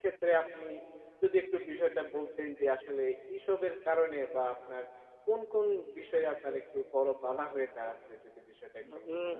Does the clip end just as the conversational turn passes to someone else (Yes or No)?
Yes